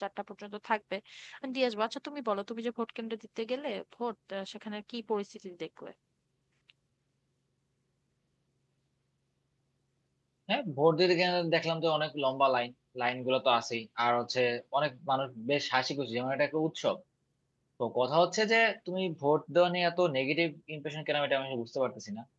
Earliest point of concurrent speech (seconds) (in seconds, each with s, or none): none